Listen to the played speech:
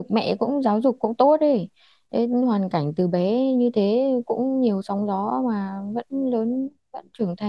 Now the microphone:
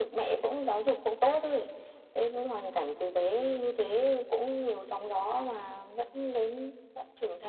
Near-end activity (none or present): none